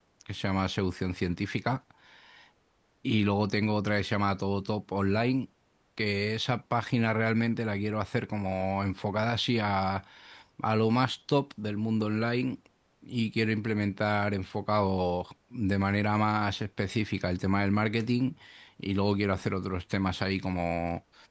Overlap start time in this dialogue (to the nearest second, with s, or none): none